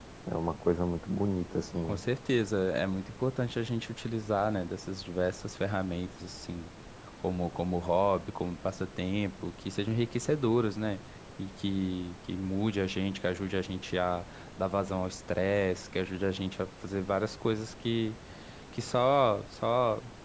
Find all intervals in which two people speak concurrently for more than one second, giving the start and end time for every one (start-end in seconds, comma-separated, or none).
none